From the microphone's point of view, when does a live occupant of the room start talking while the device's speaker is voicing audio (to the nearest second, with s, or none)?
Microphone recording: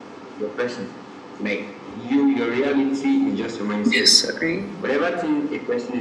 4 s